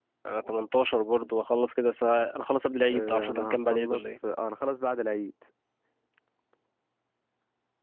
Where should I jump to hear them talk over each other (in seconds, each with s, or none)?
2.9 s